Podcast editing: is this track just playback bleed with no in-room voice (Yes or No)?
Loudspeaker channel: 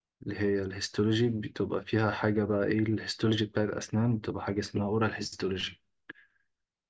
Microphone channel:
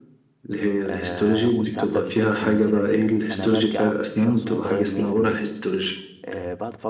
No